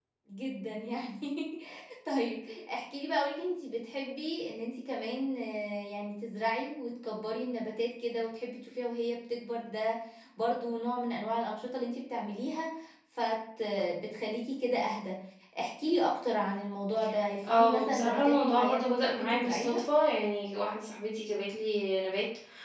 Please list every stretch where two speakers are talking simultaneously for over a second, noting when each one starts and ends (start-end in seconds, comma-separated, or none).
17.5-19.8